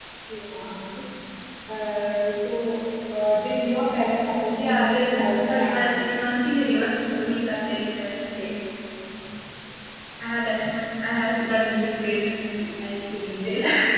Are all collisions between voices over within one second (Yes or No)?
No